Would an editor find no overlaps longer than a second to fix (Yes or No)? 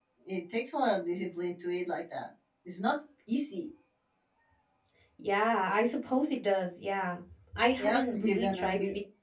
No